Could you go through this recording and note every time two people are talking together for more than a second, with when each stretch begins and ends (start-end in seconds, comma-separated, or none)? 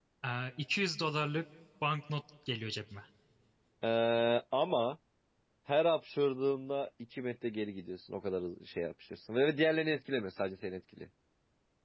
none